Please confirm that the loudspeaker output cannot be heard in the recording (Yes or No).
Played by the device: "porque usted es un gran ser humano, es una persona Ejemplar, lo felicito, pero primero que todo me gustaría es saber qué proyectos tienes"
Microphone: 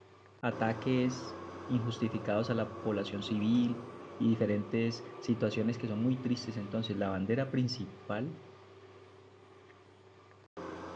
Yes